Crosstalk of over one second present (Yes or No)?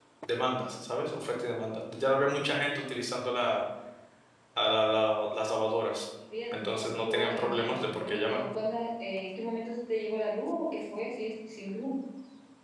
Yes